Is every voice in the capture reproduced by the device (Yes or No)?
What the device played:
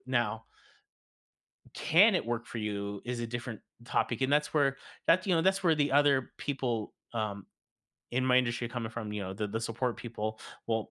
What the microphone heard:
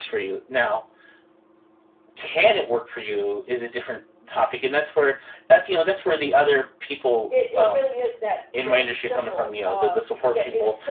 No